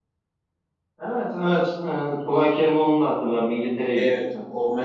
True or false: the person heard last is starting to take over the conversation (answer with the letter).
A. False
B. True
B